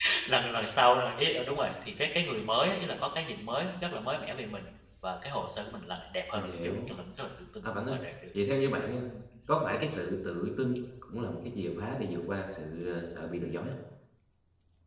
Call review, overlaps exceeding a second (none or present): none